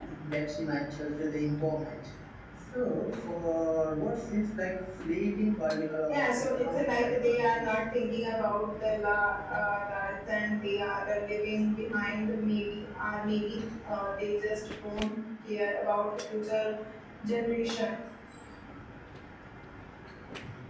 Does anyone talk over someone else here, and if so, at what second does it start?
6.1 s

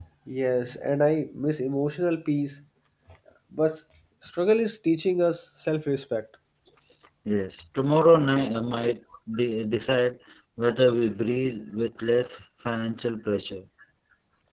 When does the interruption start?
none

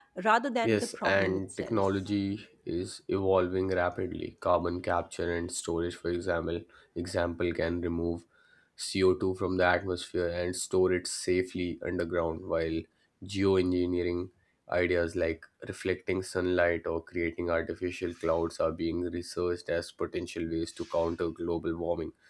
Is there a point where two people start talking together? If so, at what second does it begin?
0.6 s

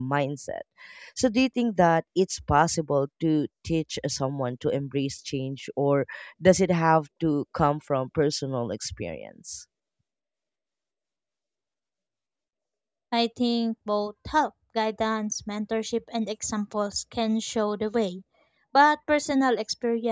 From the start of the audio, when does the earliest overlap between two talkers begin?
none

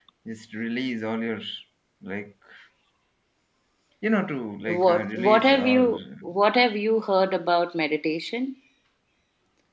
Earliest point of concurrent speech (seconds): 4.7 s

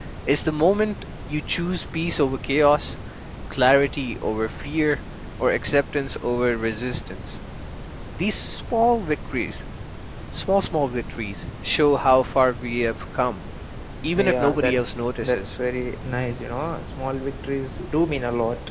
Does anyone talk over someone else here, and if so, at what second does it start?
14.1 s

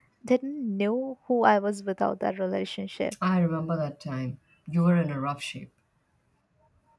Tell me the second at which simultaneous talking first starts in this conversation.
none

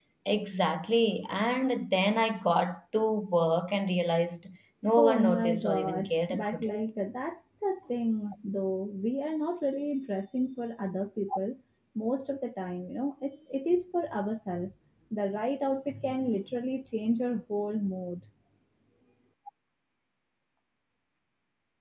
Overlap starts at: 5.0 s

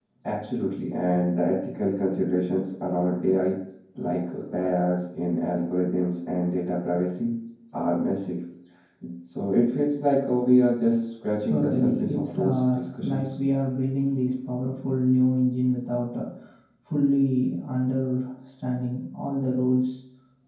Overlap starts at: 11.4 s

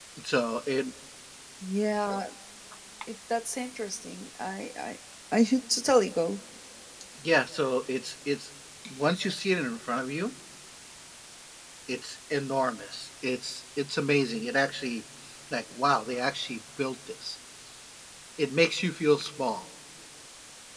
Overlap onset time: none

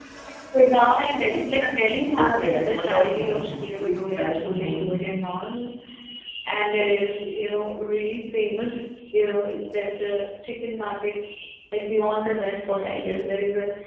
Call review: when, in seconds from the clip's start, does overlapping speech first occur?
2.2 s

